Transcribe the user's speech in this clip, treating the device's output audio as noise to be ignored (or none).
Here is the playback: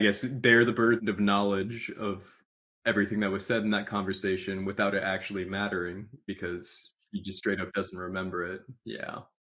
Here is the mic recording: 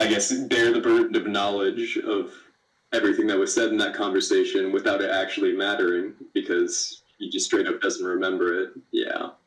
none